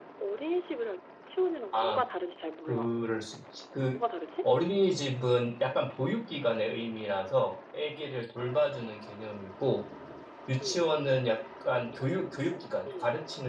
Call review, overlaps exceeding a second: none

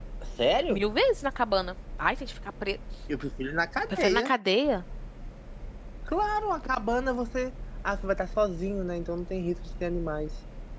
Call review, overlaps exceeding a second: none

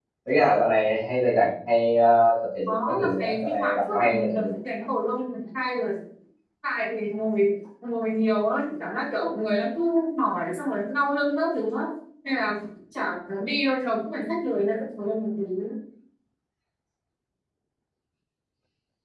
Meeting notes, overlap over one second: present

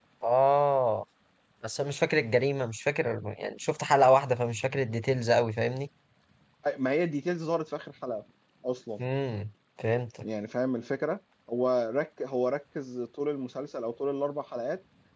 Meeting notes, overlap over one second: none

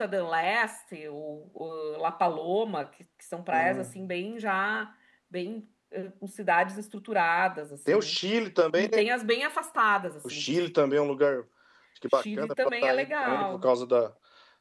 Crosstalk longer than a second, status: present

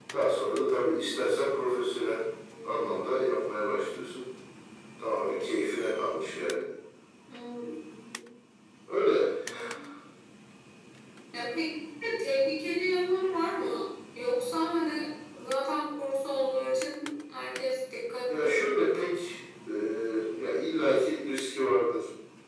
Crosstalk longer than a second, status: none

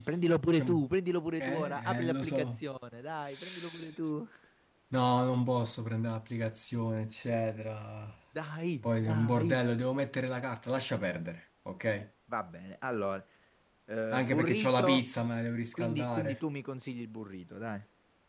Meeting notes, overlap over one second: present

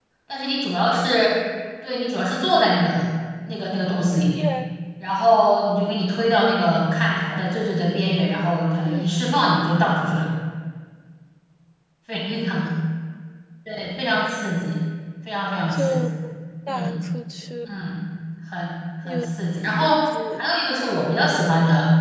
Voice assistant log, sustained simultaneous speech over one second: none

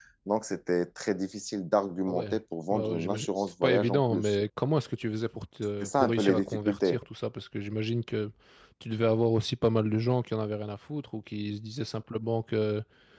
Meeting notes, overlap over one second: present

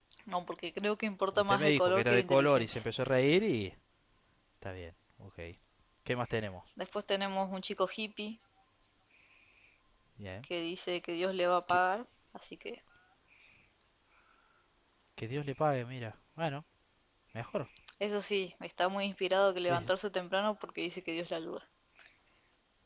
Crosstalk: present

